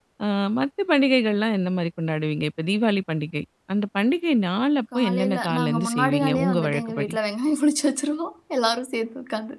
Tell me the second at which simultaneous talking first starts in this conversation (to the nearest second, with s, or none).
5 s